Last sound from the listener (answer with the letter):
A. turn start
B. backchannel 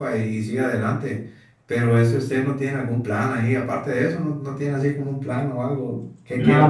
A